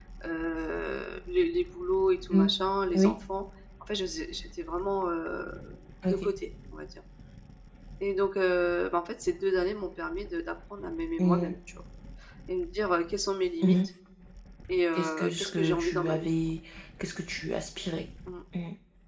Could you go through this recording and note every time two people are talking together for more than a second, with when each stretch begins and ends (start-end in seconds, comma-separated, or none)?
14.9-16.3